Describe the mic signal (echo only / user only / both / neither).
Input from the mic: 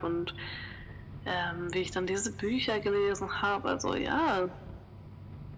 echo only